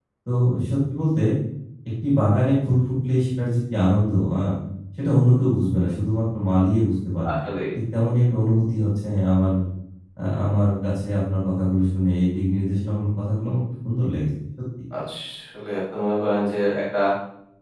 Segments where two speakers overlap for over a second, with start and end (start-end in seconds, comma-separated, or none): none